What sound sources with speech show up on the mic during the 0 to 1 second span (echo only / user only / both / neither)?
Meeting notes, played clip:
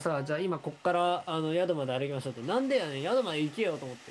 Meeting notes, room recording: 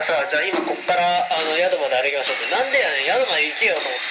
echo only